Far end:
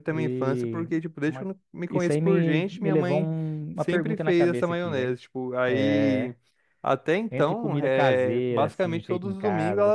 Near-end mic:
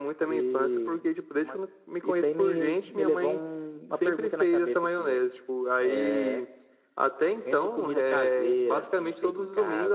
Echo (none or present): present